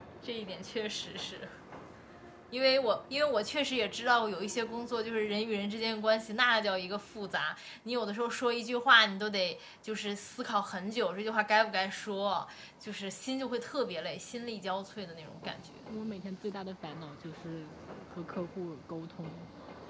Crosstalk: none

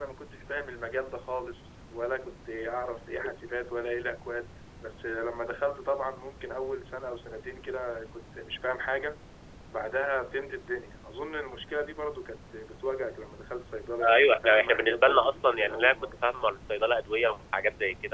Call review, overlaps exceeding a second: present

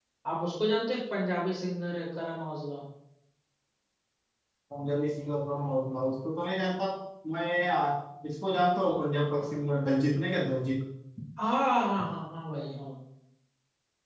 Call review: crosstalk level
none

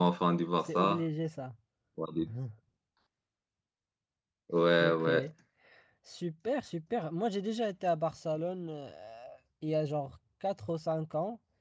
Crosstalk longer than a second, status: none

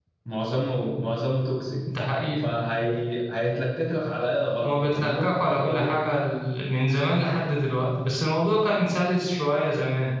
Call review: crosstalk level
present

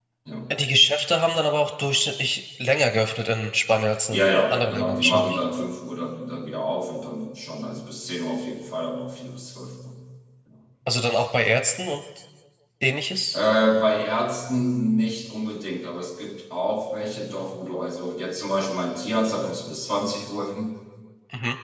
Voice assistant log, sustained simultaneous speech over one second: present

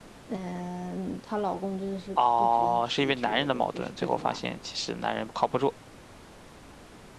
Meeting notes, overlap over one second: present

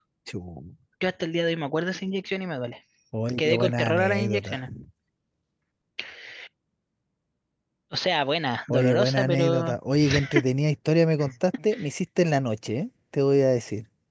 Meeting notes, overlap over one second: present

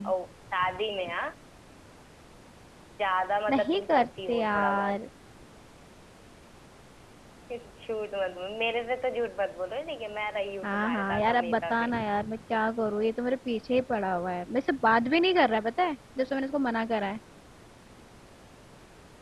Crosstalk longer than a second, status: present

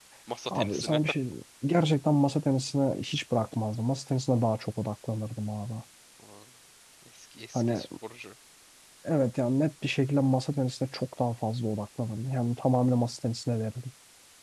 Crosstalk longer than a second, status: none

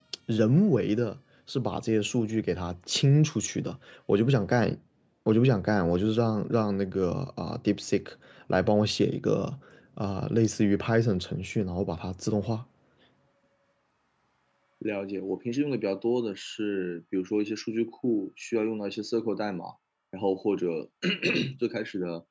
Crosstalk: none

